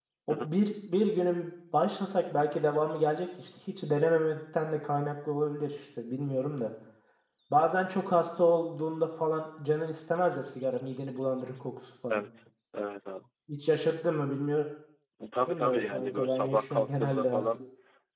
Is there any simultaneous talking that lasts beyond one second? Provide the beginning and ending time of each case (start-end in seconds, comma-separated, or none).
15.6-17.4